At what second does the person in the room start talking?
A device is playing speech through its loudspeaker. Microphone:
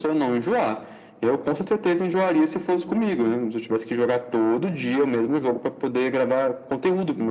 none

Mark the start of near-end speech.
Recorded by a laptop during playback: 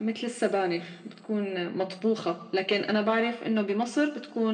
none

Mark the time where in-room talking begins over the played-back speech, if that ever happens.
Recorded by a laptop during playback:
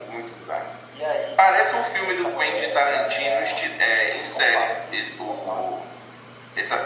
none

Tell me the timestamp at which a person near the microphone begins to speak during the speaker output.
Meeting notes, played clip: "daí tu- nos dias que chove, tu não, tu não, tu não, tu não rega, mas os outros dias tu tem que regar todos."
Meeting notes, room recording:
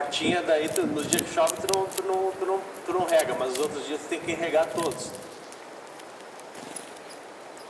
none

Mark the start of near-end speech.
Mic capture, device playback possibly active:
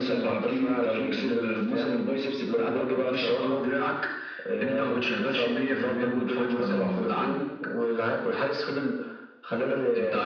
none

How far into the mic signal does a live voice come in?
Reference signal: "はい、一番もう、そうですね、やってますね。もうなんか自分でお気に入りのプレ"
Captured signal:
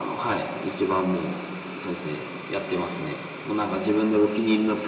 none

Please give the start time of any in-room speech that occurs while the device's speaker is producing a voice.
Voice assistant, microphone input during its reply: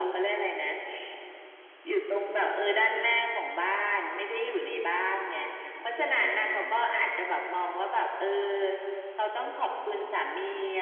none

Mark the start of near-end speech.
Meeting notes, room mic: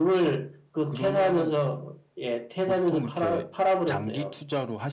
none

